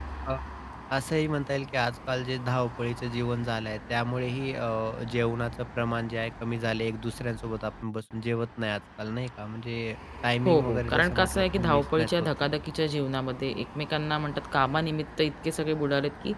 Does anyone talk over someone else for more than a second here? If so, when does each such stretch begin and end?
10.4-12.3

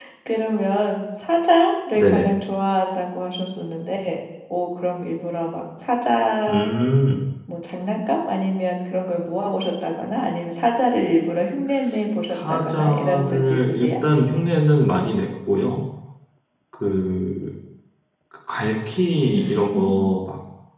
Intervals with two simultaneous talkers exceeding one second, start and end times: 12.3-13.9

